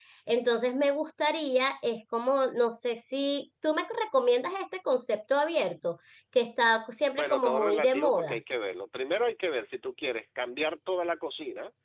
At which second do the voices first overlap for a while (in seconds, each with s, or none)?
7.2 s